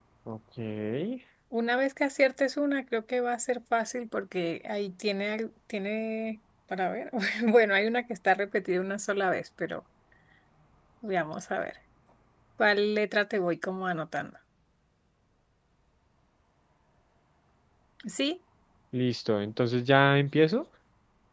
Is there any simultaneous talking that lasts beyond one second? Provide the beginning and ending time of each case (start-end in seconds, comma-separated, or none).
none